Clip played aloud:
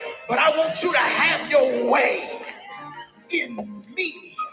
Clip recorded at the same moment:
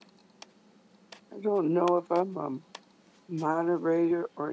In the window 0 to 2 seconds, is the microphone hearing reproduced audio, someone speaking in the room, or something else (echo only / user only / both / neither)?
user only